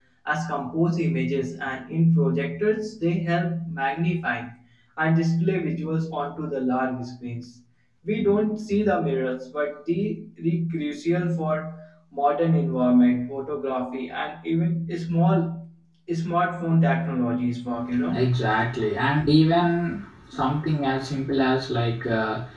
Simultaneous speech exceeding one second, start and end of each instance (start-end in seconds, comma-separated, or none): none